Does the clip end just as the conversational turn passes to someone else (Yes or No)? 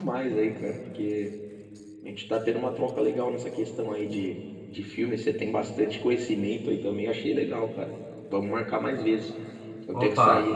No